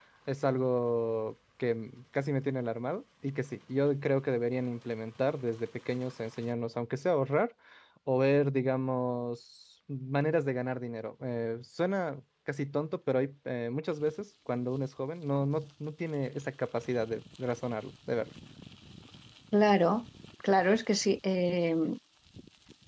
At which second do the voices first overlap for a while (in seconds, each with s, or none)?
none